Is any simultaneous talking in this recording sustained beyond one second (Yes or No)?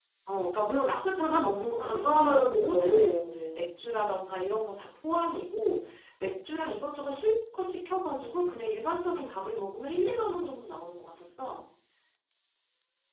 Yes